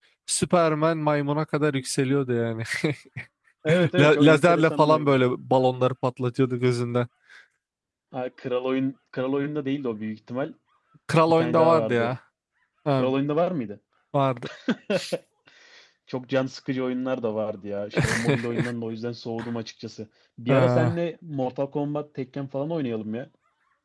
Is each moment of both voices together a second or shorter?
No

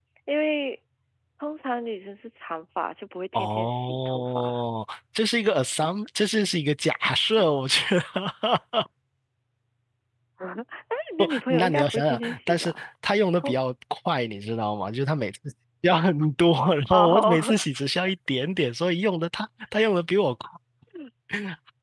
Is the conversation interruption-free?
No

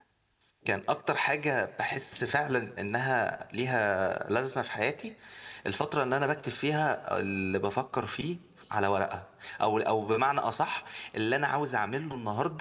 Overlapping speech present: No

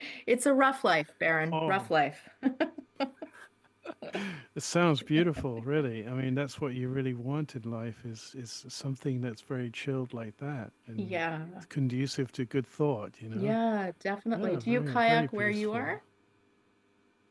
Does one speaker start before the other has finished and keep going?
Yes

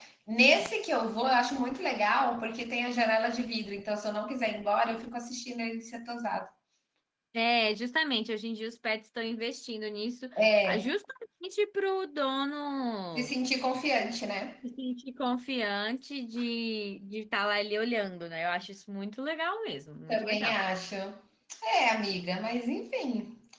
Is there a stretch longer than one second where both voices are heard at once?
No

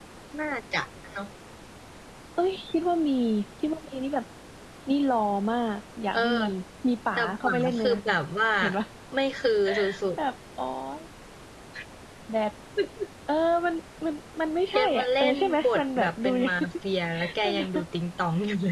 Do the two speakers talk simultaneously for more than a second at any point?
Yes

